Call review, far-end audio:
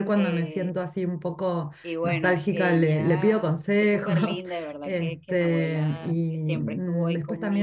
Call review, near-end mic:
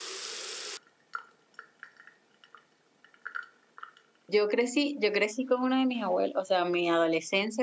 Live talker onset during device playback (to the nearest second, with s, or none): 4 s